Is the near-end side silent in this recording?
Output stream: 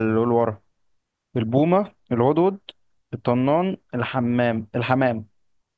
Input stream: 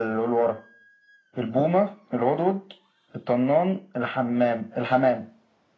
Yes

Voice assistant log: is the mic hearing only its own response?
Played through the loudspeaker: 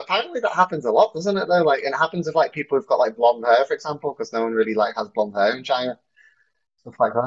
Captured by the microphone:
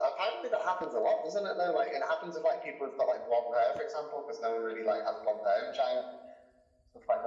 Yes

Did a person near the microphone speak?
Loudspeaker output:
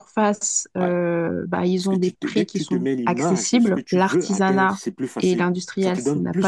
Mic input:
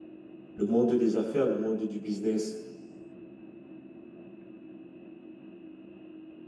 Yes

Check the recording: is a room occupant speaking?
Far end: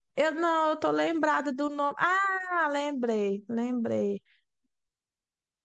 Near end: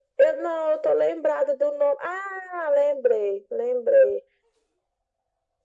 No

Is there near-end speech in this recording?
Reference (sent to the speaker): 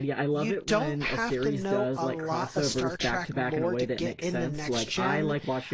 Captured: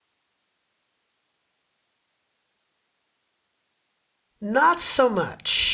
Yes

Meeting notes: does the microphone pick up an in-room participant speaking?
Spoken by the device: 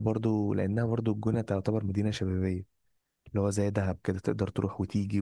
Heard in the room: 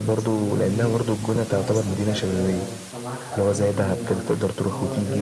Yes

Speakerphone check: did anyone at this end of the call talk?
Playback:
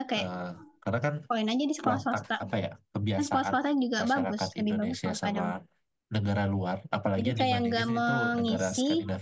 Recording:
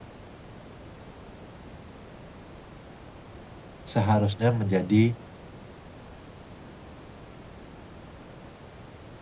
Yes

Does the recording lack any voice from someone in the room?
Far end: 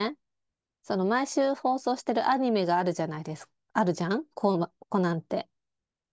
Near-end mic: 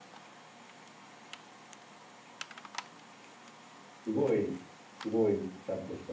No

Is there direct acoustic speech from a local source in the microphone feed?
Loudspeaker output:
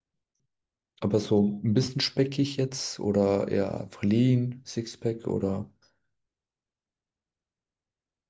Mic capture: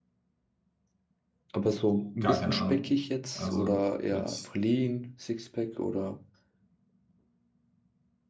Yes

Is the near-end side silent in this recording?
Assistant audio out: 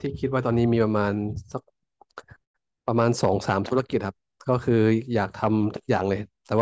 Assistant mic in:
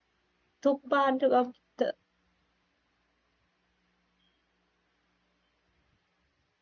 No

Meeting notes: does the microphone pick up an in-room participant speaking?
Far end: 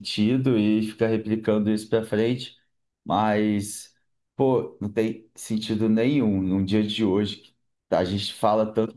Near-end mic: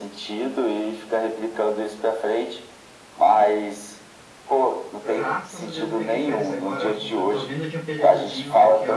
Yes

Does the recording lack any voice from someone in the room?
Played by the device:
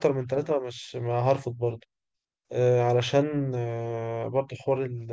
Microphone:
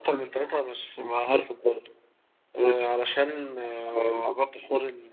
Yes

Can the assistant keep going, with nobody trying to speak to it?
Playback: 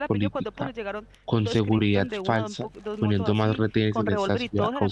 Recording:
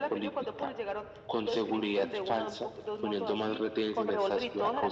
Yes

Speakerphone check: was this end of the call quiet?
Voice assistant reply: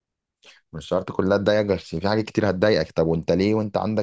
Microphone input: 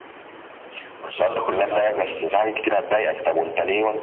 No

